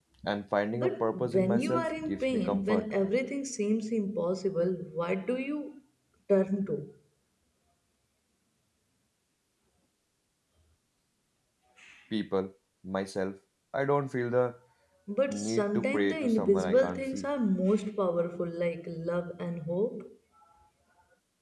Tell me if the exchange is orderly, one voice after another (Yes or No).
No